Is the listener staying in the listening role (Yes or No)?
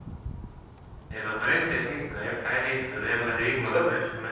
Yes